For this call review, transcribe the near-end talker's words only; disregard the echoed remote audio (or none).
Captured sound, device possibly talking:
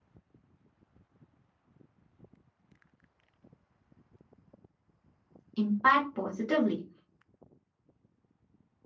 impact positively.